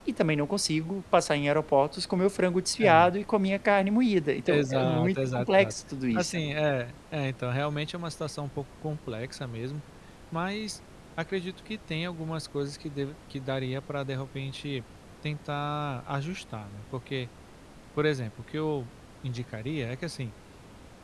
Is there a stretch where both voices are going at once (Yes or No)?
Yes